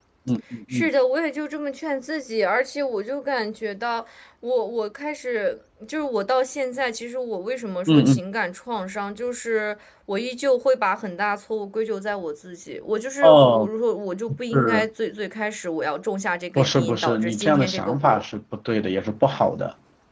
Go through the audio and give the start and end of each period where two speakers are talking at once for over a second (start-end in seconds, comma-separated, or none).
16.6-18.2